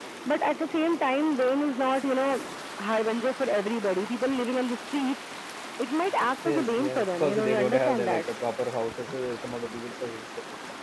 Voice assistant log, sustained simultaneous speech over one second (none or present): present